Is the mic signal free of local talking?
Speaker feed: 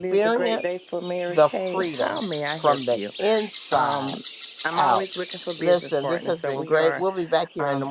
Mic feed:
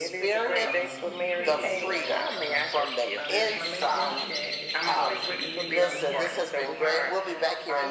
No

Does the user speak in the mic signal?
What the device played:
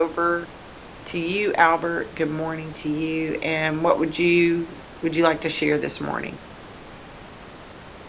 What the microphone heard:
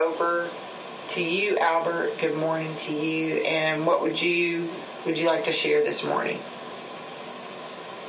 No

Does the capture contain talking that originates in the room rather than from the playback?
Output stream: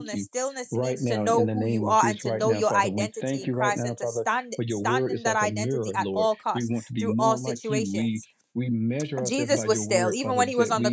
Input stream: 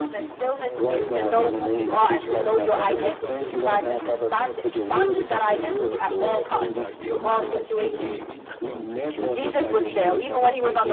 Yes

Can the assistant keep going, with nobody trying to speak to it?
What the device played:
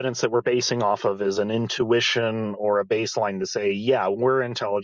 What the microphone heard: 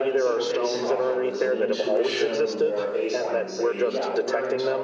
No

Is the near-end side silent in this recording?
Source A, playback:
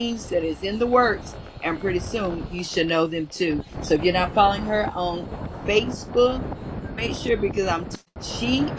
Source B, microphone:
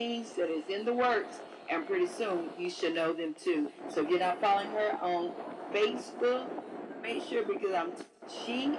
Yes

